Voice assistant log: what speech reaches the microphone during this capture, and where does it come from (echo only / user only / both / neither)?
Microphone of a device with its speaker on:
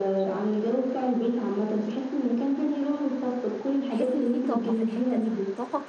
both